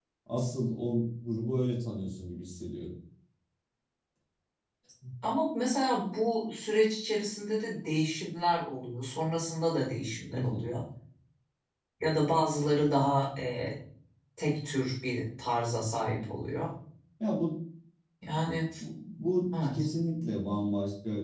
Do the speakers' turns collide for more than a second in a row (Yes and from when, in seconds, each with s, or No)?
No